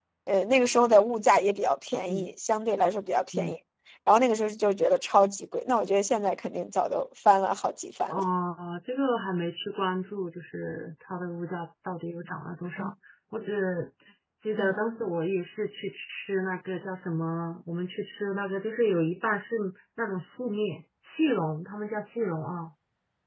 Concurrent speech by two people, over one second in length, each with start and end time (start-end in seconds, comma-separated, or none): none